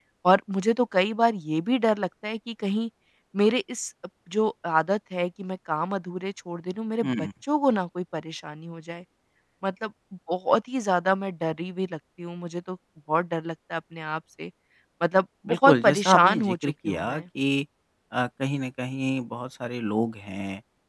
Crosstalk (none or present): present